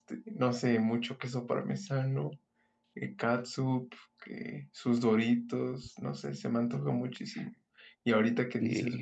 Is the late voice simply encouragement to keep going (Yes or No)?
Yes